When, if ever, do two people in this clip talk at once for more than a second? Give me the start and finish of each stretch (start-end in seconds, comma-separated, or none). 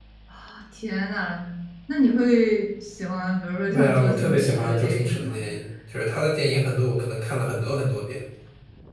3.7-5.4